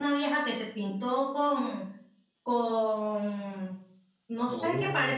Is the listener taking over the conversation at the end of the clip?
No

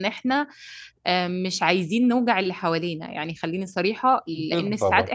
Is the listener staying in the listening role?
Yes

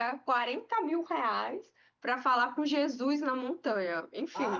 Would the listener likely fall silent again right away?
No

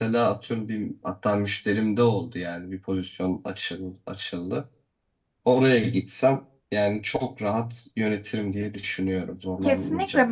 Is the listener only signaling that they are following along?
No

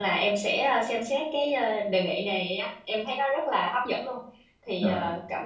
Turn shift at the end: No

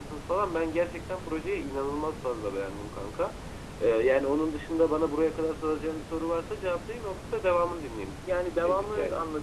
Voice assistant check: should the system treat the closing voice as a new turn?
Yes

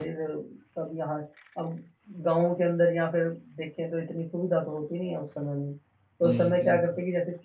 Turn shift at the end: No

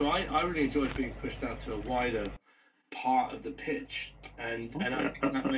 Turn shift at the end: Yes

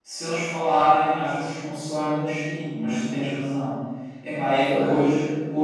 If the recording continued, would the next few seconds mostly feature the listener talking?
No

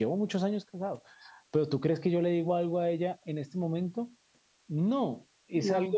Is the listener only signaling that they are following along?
Yes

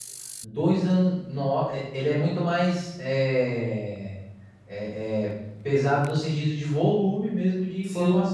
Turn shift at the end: Yes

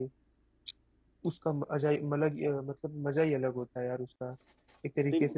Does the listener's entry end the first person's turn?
No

